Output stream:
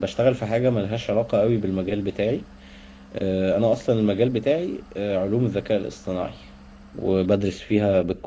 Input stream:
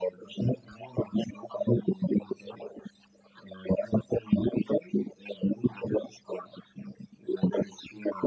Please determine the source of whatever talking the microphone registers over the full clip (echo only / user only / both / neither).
echo only